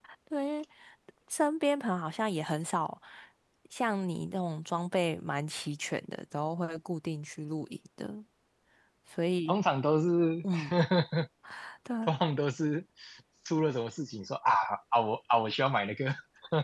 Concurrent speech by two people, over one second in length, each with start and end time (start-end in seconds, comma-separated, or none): none